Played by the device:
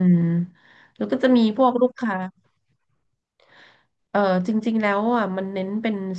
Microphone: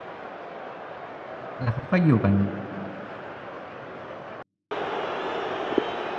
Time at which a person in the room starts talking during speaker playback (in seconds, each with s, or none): 1.6 s